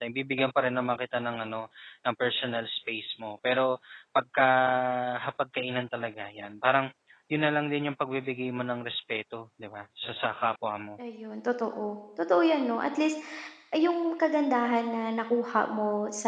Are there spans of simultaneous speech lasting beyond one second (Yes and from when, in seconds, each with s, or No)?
No